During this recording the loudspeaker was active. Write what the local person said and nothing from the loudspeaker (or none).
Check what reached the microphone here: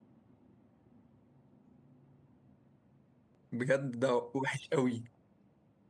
بجد ده وحش قوي